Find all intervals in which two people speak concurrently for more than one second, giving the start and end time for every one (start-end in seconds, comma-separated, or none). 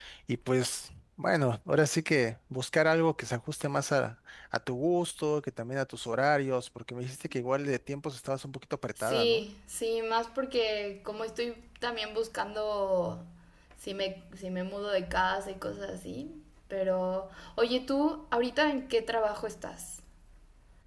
none